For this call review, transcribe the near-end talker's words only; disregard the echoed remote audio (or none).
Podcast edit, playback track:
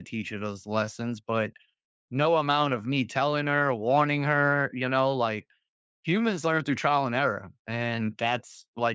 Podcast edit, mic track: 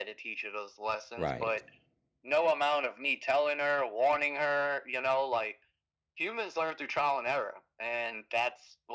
Right.